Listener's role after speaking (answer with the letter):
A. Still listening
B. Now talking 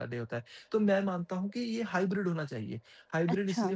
A